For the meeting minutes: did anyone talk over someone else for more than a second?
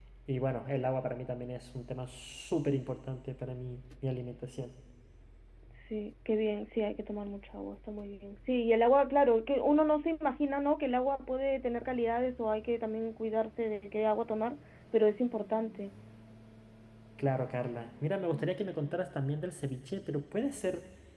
No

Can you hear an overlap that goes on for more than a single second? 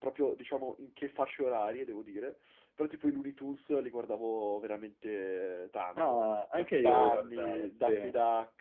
Yes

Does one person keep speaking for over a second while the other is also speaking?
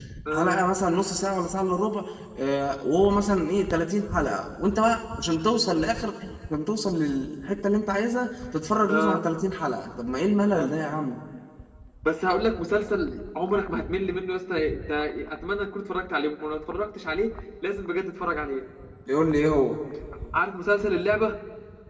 No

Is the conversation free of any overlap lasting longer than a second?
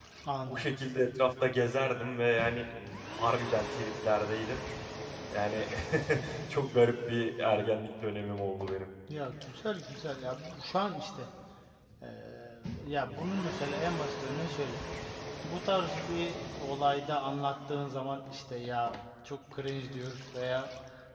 Yes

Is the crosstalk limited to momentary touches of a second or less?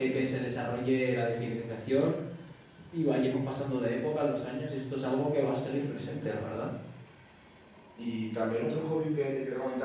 Yes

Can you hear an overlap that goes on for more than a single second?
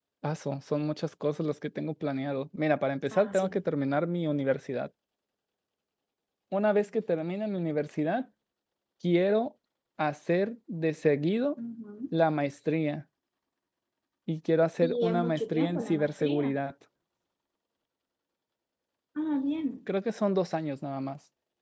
Yes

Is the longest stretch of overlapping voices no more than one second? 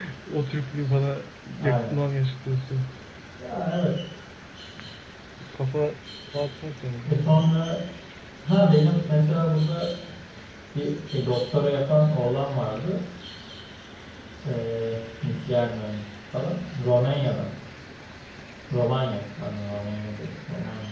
Yes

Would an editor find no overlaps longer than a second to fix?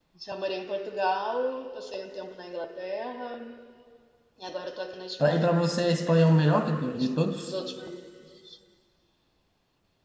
Yes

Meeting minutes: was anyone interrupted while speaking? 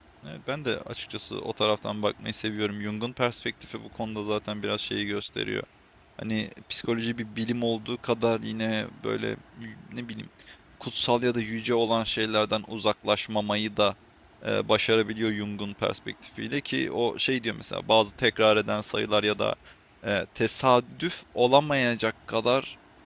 No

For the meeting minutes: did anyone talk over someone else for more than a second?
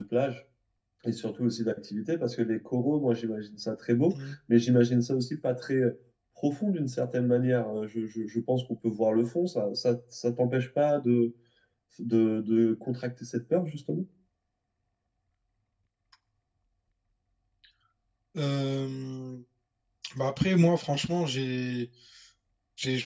No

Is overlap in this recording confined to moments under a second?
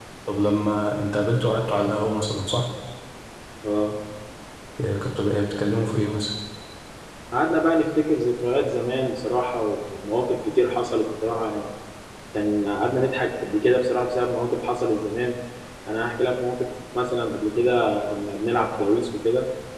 Yes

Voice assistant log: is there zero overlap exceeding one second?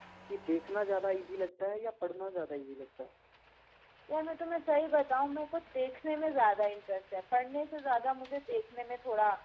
Yes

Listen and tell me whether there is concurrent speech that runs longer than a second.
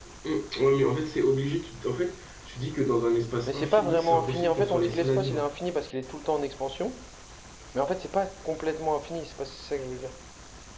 Yes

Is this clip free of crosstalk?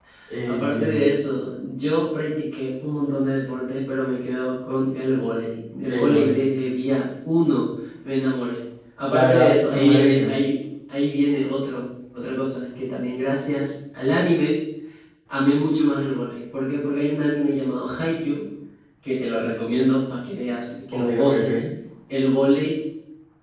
No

